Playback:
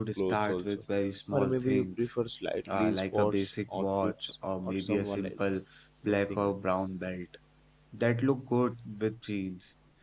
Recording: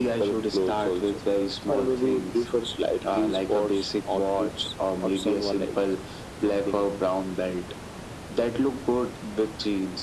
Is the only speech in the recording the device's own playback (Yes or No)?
Yes